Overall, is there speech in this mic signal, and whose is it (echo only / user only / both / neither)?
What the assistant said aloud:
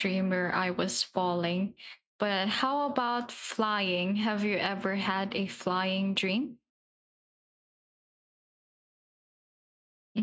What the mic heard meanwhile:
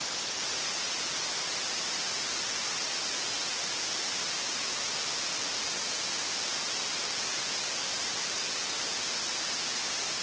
neither